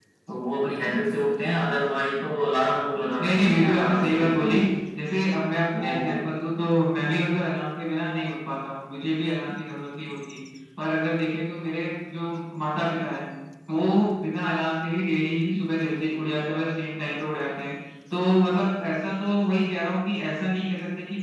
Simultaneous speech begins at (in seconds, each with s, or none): 3.2 s